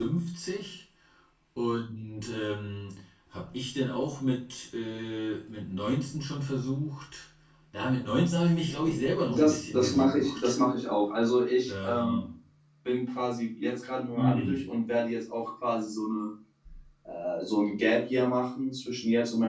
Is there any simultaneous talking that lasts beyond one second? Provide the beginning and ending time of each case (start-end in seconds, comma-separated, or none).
9.2-10.6